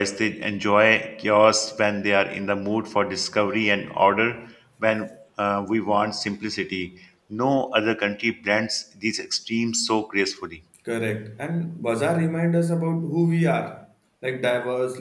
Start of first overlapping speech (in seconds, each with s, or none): none